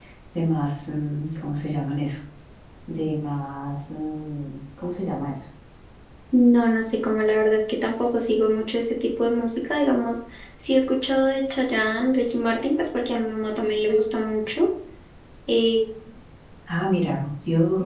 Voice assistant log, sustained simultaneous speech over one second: none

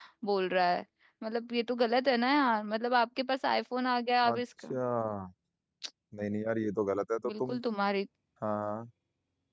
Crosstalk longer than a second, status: none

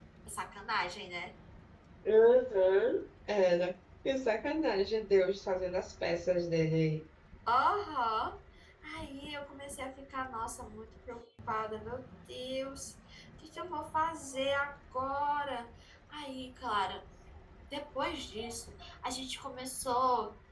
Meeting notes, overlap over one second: none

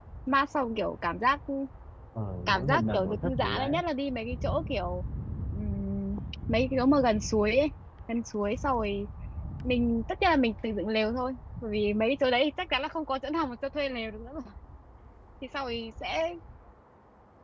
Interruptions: present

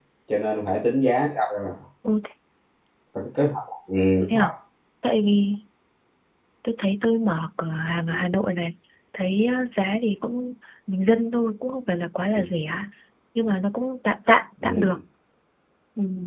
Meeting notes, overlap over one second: none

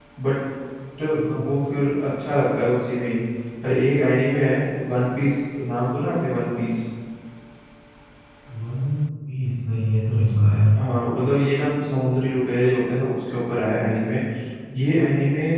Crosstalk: none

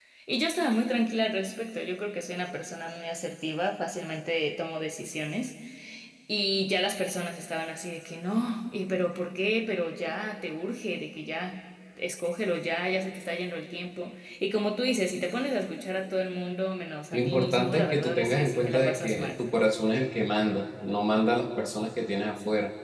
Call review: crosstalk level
present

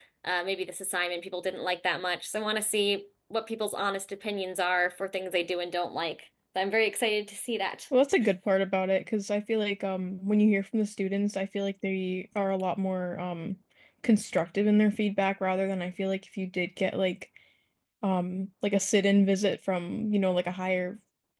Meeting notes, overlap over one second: none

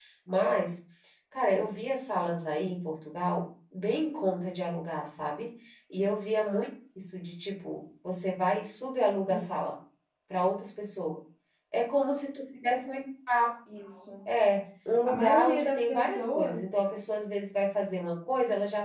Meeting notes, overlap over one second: present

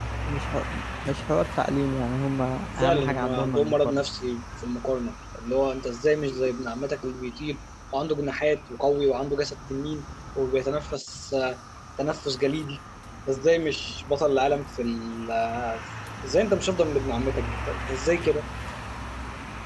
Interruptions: present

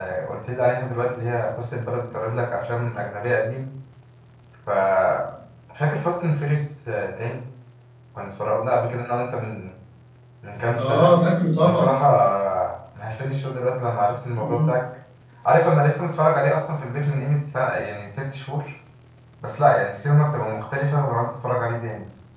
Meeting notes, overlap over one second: none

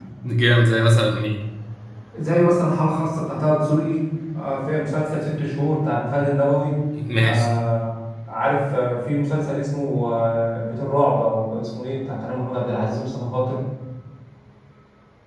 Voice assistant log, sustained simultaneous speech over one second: none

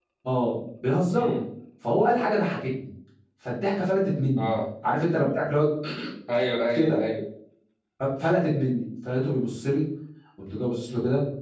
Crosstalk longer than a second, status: none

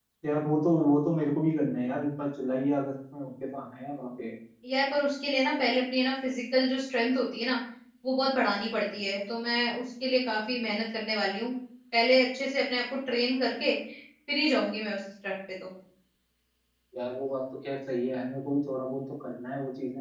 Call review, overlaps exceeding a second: none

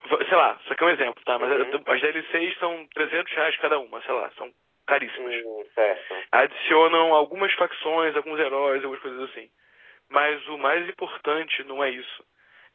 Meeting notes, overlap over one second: none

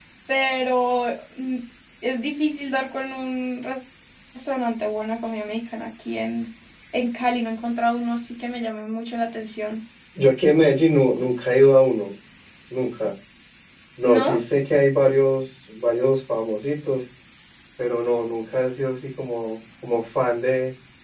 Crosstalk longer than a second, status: none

